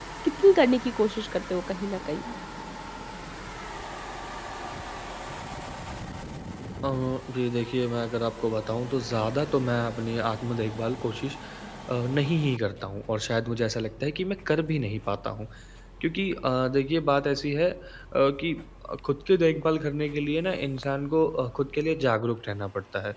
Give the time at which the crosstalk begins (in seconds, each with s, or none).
none